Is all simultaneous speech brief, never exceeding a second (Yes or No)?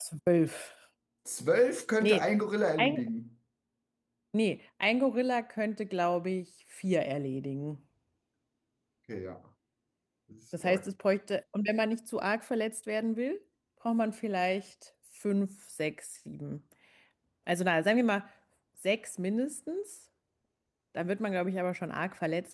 Yes